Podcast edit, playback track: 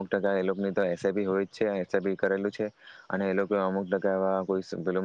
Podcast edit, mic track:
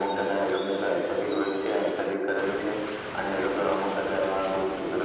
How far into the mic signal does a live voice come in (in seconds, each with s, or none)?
none